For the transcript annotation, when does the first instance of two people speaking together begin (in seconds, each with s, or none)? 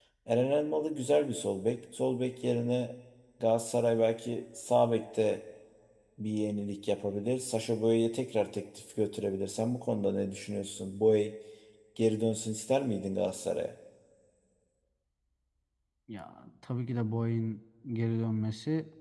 none